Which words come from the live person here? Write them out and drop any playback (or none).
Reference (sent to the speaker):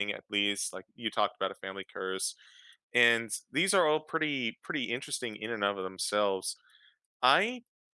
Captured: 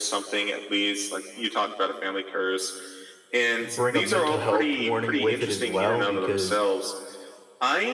bring a mental health warning with it as well because,